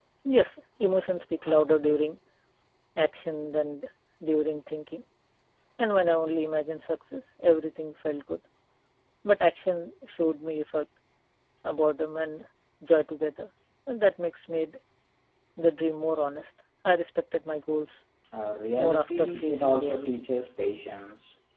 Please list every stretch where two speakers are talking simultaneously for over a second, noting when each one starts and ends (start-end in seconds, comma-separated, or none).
18.8-20.2